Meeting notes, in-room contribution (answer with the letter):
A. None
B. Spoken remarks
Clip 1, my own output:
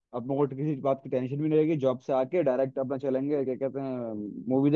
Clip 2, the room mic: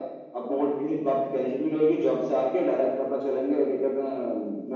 A